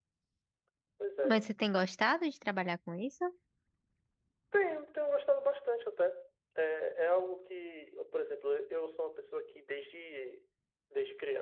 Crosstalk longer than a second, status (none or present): none